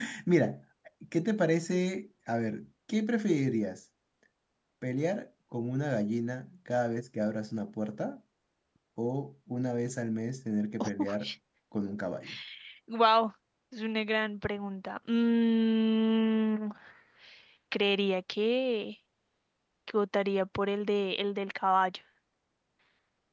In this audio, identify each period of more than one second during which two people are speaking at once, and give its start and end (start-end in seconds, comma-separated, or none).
none